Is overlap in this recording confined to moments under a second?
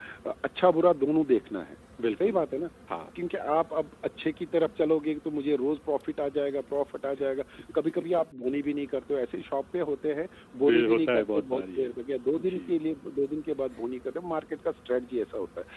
No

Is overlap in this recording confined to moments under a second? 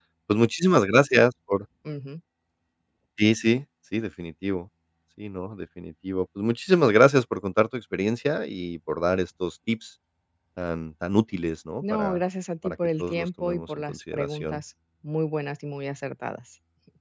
No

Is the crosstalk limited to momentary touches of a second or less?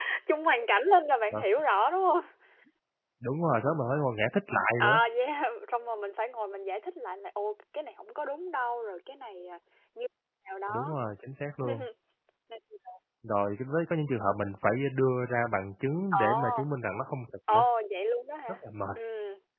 Yes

